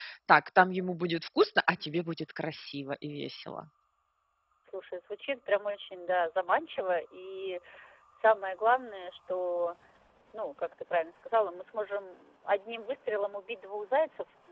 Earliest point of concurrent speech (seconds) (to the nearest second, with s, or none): none